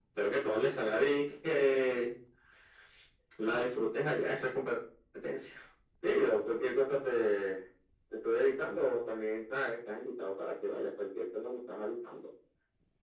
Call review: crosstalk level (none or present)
none